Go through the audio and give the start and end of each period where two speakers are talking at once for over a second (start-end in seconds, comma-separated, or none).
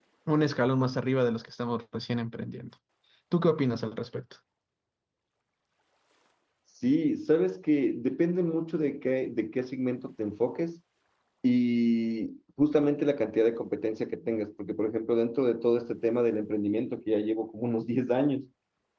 none